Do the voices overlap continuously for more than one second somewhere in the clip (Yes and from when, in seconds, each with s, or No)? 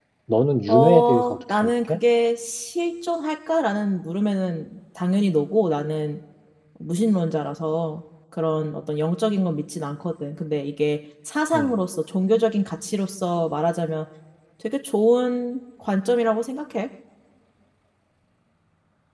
Yes, from 0.7 s